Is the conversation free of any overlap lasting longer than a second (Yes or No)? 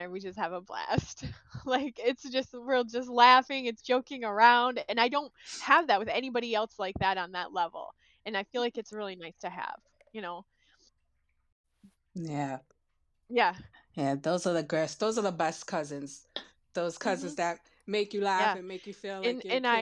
Yes